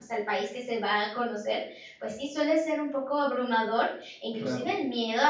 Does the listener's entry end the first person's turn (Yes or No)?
No